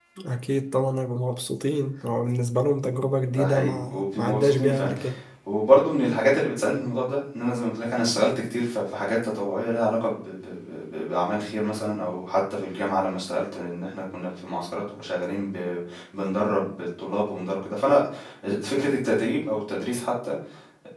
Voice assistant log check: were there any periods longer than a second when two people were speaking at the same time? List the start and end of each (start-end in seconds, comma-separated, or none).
3.3-4.9